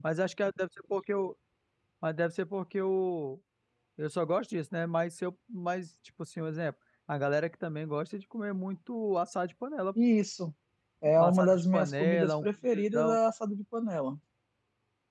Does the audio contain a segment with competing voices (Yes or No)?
Yes